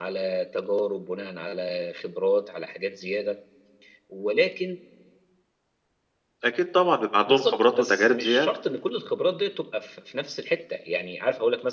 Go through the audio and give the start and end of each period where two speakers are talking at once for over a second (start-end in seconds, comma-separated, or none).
7.3-8.5